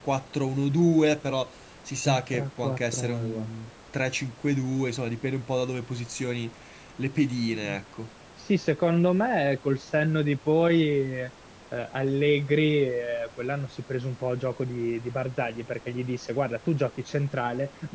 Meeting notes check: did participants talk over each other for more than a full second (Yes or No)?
Yes